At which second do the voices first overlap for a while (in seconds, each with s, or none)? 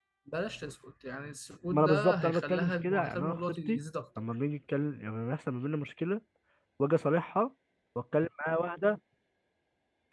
1.7 s